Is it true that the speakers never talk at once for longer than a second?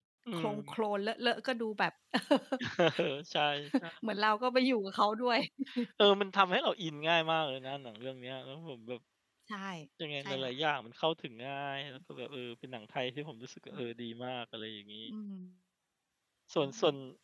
Yes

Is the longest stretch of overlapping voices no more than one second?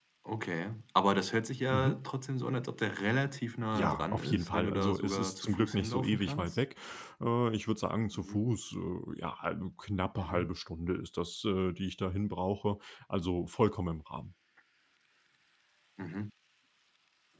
No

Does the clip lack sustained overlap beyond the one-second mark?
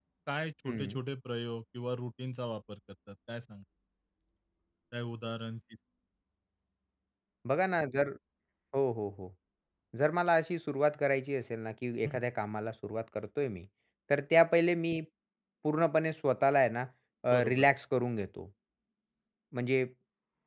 Yes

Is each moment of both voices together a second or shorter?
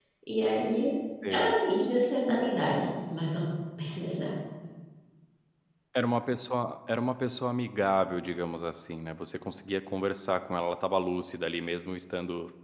Yes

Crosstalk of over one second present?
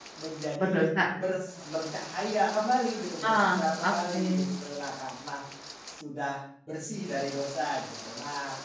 Yes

